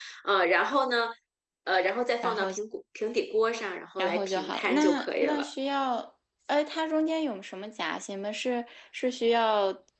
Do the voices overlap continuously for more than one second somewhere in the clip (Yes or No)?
Yes